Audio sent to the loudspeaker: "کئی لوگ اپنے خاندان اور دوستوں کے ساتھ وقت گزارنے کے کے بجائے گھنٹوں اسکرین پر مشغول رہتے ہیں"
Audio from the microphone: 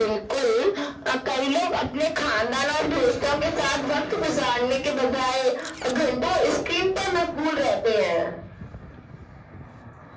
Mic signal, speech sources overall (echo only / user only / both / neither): echo only